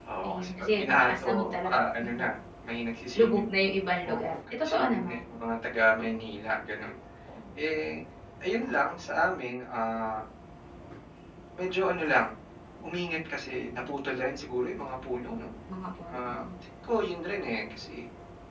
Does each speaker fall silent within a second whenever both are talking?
No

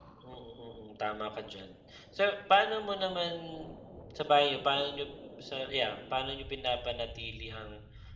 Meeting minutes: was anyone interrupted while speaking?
No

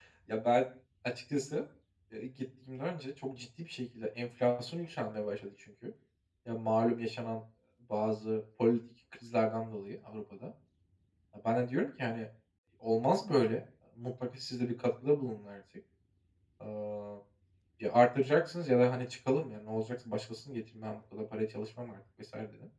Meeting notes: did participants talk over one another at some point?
No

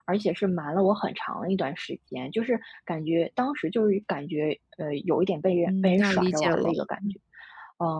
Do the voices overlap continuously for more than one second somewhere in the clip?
Yes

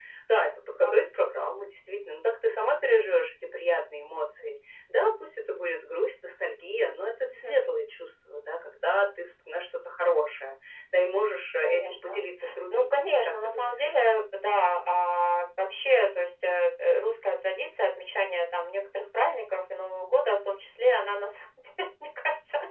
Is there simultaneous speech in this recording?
Yes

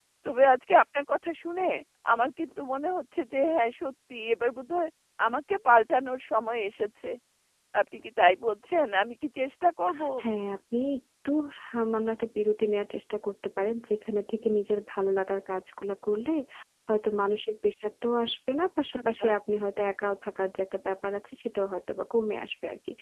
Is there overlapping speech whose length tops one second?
No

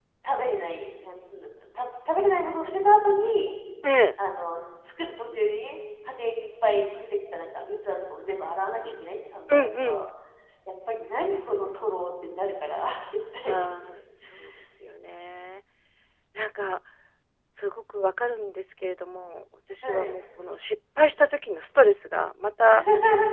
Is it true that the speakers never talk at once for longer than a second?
Yes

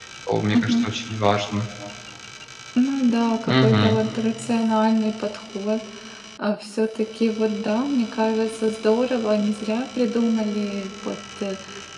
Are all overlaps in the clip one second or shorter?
Yes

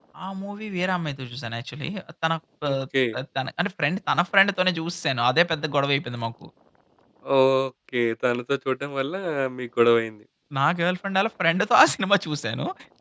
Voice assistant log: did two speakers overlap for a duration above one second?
No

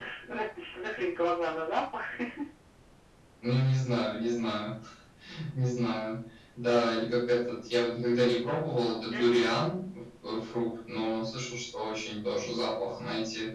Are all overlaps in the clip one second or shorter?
Yes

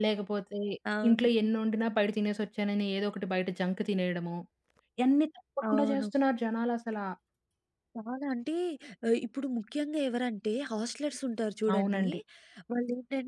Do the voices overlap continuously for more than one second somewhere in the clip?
No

